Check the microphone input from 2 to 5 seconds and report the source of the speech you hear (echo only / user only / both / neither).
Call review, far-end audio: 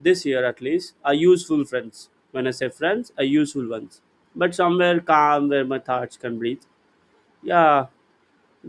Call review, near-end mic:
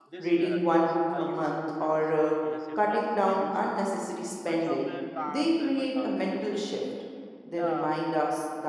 both